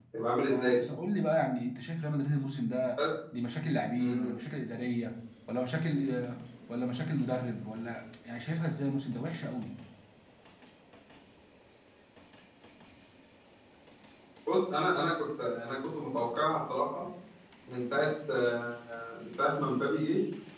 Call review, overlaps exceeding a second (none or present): none